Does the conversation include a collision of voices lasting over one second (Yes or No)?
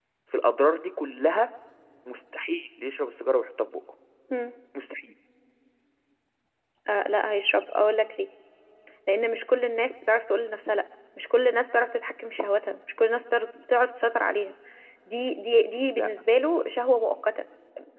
No